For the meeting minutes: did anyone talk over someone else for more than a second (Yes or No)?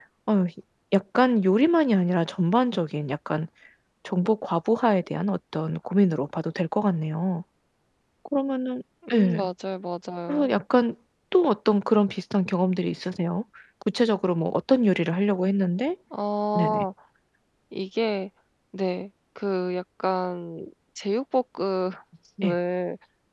No